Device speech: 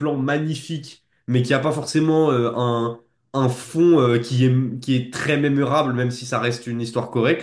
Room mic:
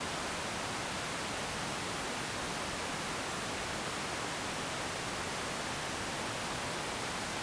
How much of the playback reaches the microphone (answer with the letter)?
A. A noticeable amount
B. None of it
B